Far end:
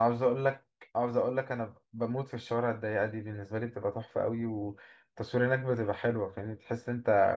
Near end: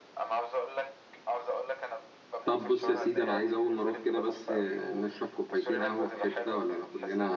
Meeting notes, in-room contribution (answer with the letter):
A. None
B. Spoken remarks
B